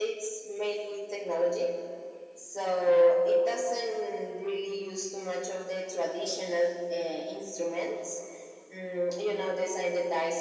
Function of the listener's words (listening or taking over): listening